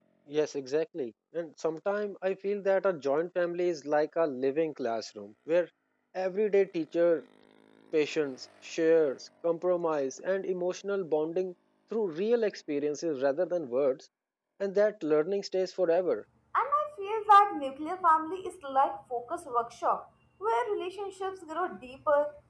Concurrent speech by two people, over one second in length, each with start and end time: none

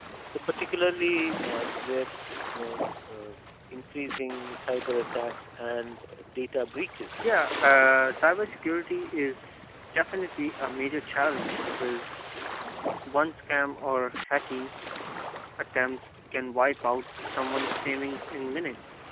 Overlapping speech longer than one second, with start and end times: none

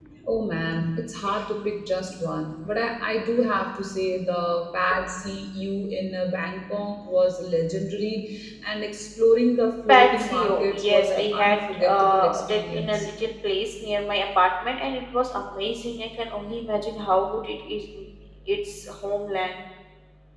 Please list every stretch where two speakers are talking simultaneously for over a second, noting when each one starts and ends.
9.9-13.1

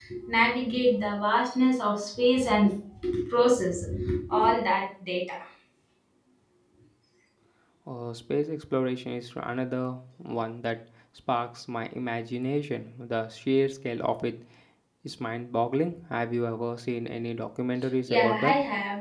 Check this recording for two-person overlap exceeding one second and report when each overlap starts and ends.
none

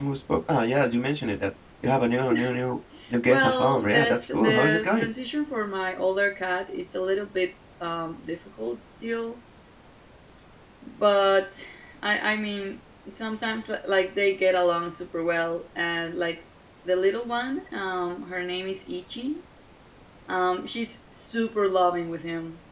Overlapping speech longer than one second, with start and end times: 3.3-5.1

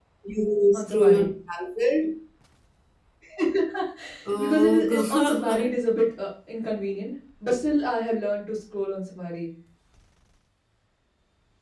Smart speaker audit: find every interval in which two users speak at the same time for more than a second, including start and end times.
4.4-5.8

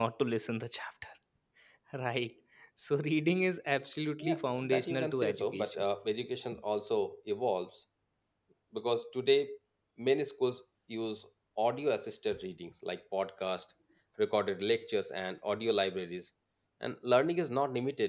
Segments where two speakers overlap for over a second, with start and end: 4.2-5.8

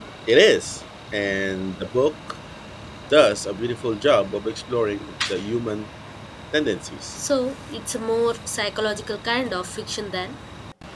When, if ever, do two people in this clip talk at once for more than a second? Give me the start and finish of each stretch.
none

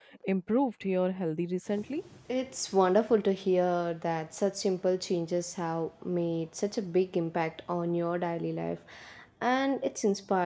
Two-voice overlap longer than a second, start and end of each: none

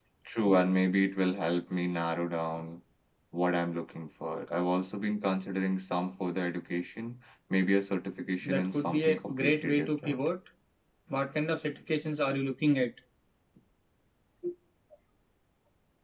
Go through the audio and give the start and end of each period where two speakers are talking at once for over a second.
8.4-10.2

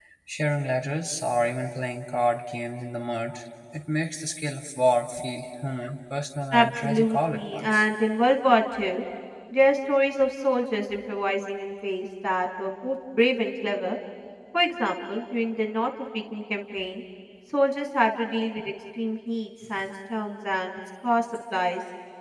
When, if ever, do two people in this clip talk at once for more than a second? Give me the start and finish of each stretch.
6.5-7.8

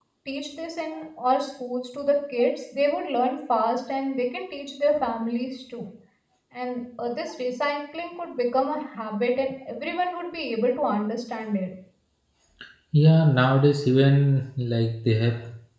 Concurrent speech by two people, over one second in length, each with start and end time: none

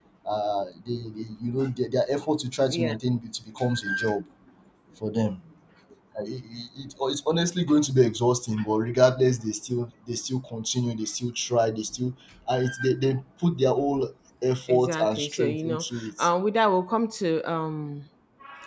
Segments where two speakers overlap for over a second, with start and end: 14.7-16.3

